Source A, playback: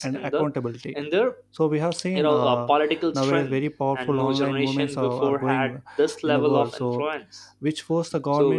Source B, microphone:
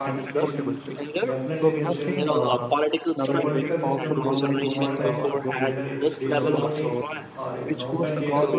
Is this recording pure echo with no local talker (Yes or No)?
No